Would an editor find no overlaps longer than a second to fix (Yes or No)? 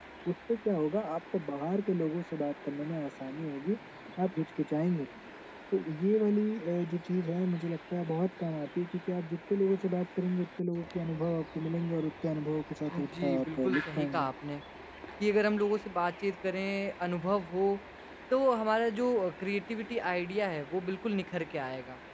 No